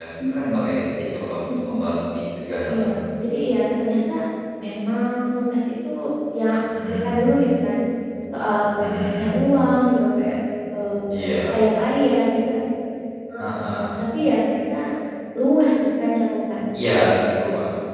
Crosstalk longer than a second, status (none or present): none